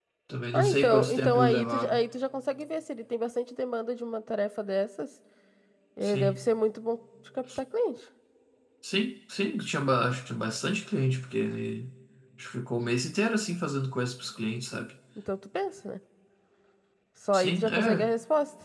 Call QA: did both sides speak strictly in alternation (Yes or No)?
No